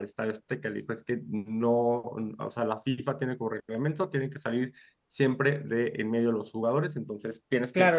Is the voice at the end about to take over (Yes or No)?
Yes